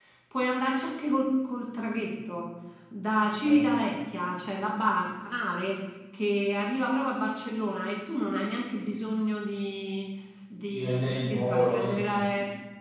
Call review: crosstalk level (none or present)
present